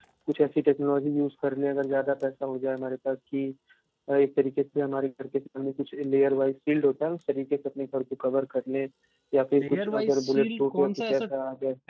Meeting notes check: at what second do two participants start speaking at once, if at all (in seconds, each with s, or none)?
9.6 s